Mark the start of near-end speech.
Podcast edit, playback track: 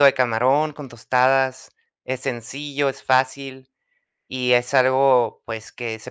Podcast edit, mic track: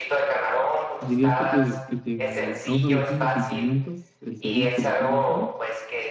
1.0 s

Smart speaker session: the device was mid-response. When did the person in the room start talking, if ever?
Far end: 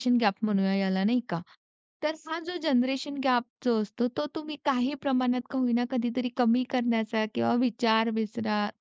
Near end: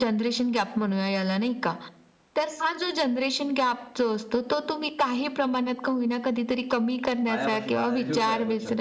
7.2 s

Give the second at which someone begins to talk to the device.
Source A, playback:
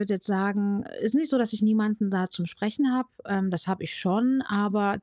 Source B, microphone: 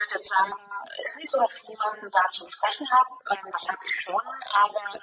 none

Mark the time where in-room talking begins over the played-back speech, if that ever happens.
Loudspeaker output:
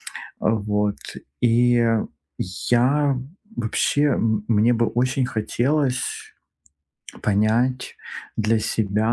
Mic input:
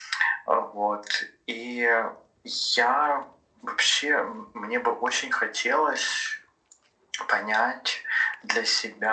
none

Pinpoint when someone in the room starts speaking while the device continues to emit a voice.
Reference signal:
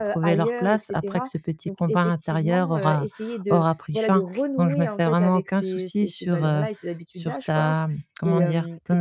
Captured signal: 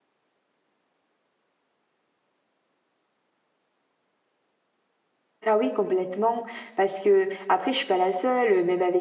5.5 s

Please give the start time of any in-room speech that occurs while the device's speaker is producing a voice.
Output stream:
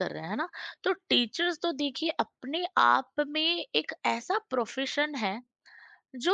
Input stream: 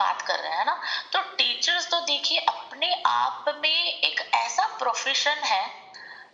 none

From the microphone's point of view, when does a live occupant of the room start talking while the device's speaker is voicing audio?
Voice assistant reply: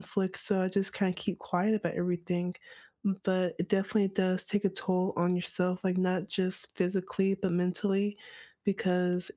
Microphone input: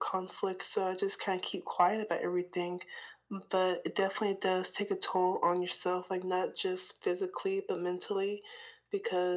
none

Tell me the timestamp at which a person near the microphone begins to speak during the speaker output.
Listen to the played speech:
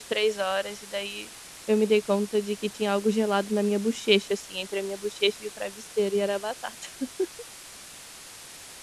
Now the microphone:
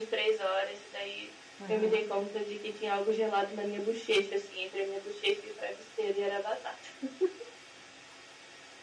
1.6 s

